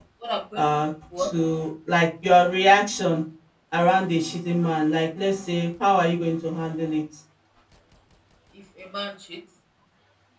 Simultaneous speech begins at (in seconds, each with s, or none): none